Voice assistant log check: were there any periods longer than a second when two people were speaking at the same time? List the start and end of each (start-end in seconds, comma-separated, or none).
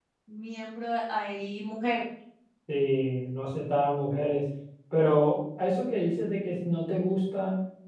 none